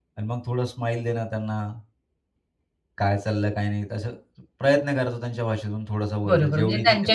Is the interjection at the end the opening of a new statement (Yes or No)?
Yes